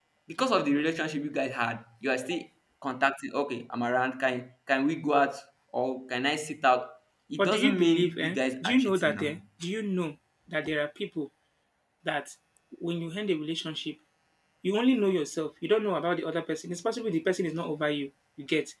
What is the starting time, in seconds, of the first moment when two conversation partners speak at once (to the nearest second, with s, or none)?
7 s